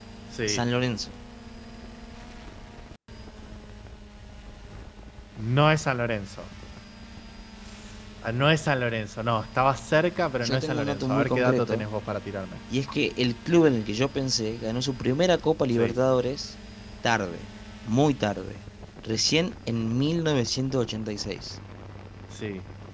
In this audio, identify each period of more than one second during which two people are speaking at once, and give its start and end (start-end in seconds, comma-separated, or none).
10.4-11.8